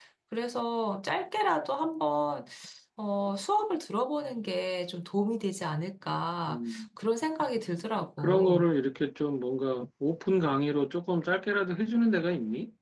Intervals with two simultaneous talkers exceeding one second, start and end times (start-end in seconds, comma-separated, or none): none